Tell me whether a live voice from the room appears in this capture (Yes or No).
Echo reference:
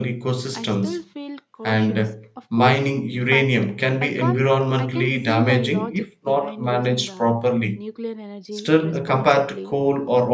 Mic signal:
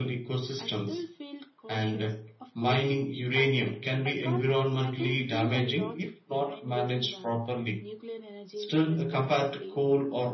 No